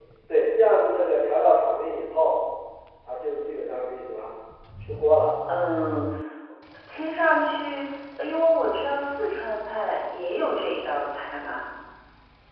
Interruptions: none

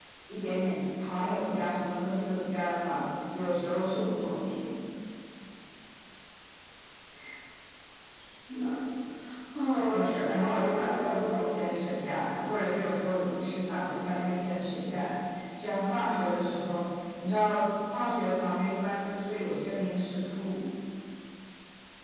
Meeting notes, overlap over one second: present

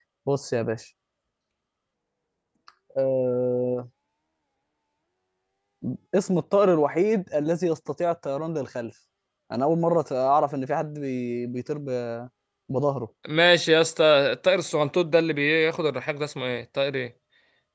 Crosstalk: none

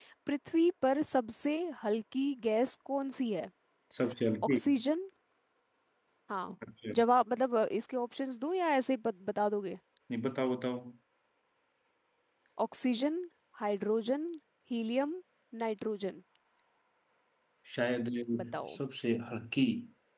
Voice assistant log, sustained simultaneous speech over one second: none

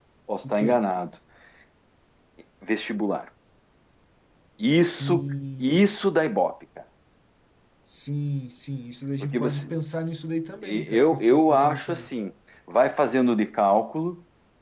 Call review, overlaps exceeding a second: present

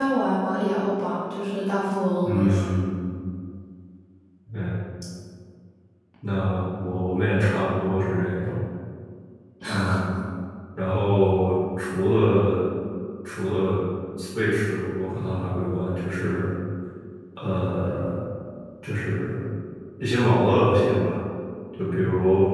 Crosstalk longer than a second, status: none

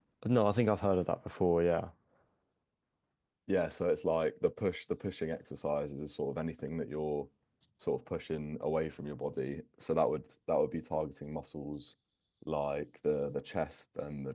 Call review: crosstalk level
none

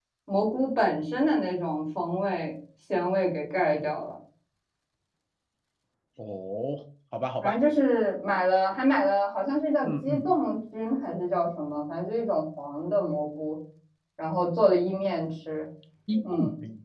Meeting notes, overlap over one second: none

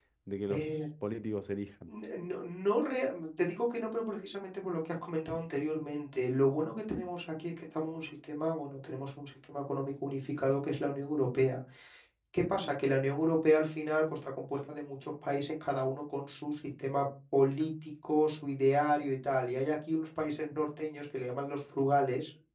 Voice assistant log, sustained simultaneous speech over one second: none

